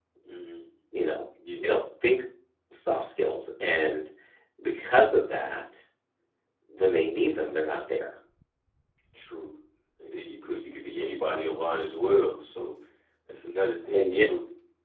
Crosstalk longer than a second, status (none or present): none